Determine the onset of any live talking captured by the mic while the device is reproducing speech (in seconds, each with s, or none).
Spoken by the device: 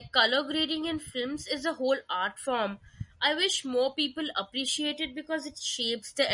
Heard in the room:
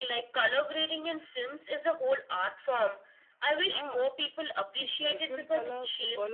3.6 s